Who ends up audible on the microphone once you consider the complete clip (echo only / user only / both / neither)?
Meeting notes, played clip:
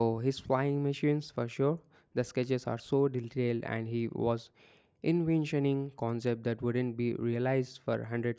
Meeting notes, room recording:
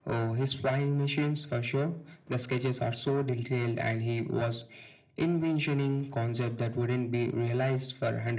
echo only